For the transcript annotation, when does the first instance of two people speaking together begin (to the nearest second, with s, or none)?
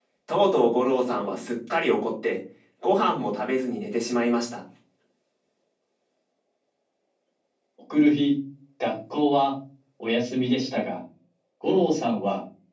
none